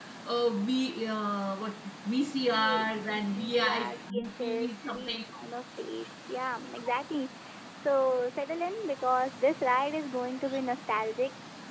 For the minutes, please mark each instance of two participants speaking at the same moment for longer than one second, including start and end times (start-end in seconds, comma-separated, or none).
2.4-5.2